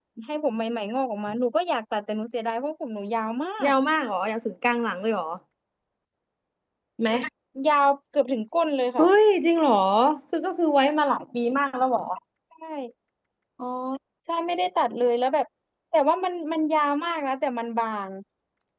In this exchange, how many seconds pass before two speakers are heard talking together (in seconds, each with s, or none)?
none